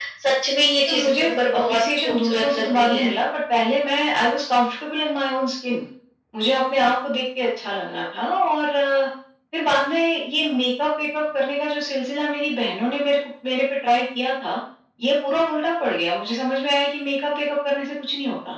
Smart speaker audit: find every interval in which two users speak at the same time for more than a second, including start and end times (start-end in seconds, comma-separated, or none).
0.9-3.1